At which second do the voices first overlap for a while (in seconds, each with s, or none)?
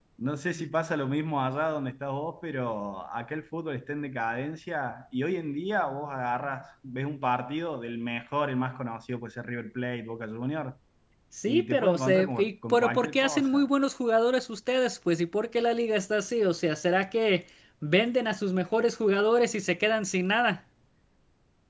11.4 s